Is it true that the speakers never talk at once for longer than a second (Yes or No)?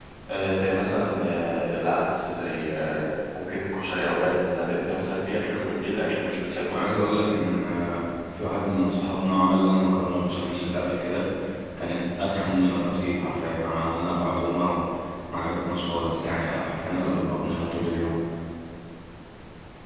Yes